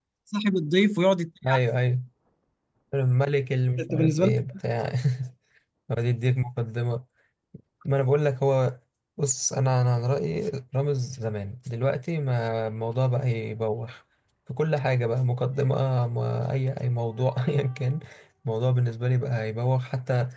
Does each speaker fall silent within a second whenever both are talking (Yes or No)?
Yes